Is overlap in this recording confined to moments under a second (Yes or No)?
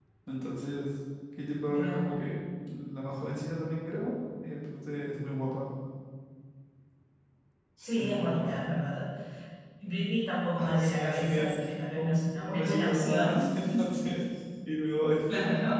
No